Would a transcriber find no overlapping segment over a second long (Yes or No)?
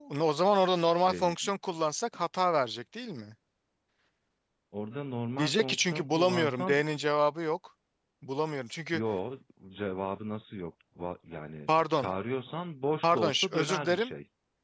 No